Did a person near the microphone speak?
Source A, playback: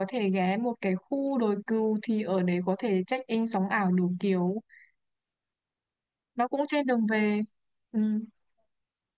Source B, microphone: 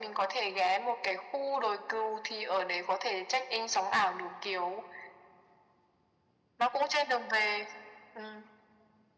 No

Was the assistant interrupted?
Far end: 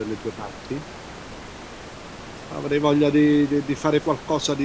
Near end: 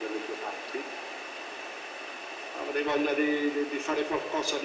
No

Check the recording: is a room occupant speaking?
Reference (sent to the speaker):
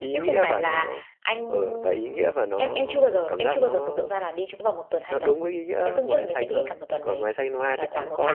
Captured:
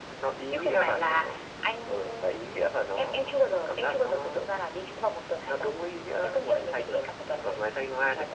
No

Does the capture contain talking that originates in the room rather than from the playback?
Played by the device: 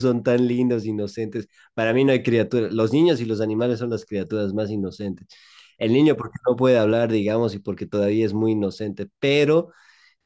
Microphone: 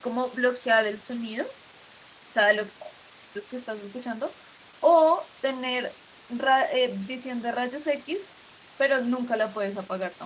Yes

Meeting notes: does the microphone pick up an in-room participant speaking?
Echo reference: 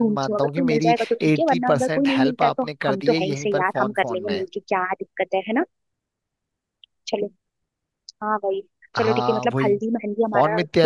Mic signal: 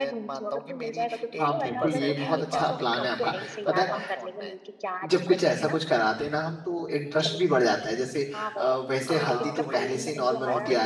Yes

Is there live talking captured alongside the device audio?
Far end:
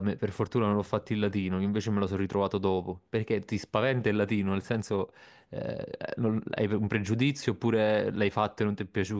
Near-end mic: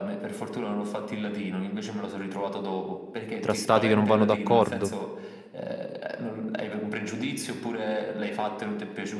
Yes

